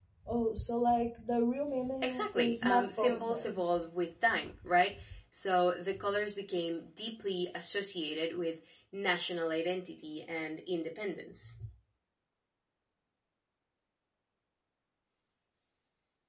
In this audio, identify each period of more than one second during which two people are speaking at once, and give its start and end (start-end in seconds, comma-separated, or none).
2.0-3.6